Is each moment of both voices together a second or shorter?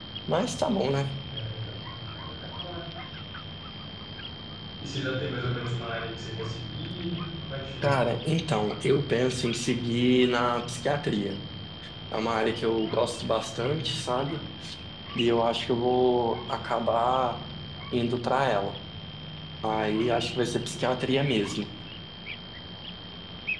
Yes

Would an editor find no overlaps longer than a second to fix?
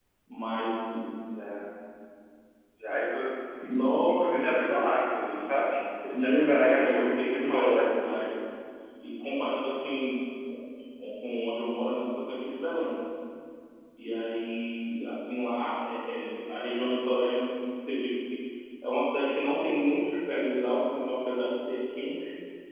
No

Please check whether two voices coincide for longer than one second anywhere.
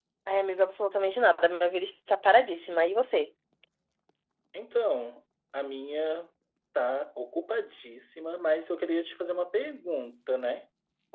No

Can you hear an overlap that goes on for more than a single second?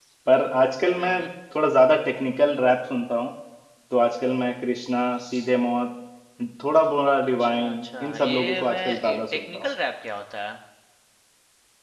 Yes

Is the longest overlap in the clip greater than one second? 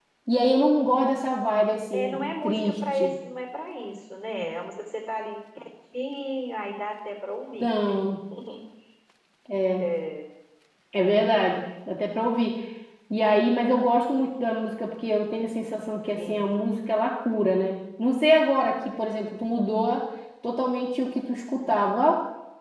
Yes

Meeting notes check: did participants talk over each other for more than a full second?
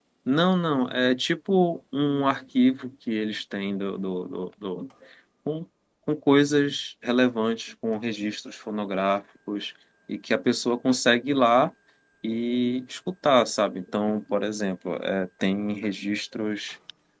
No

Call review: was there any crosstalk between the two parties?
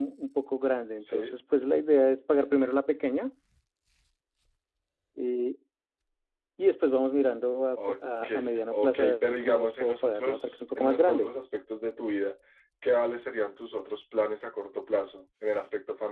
Yes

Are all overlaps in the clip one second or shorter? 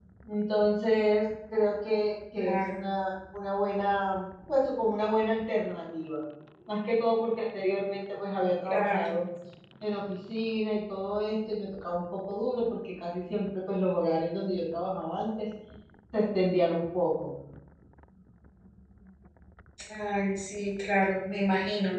Yes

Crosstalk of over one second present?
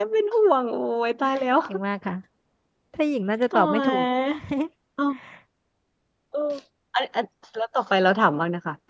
No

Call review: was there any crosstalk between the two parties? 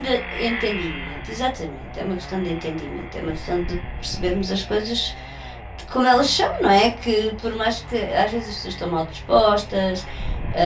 No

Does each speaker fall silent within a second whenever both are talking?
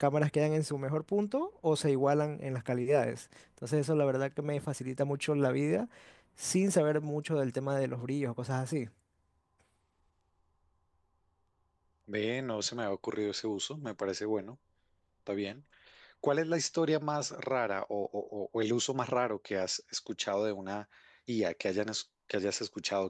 Yes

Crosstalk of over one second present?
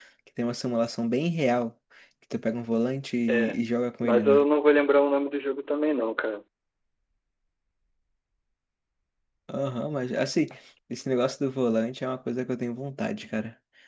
No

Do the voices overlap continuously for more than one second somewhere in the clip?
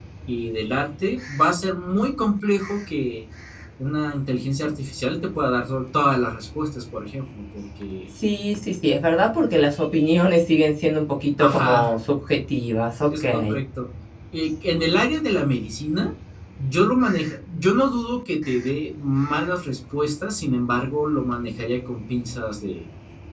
No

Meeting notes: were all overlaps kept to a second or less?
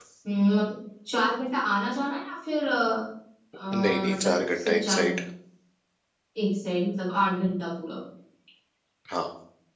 No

